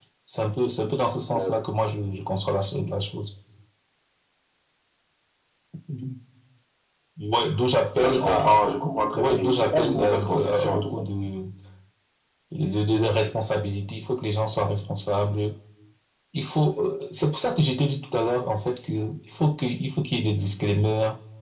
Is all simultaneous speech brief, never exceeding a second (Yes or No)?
No